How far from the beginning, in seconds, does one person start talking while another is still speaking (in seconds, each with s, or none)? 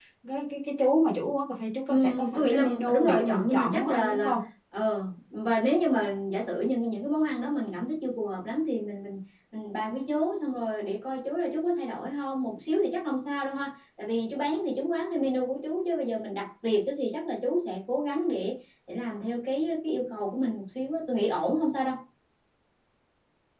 1.9 s